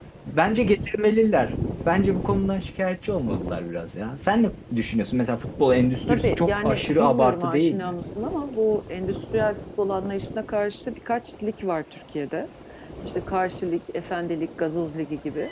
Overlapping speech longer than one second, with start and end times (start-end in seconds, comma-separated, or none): 6.1-8.0